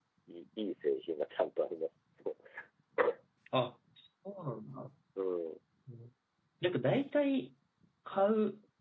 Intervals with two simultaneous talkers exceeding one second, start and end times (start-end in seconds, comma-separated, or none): none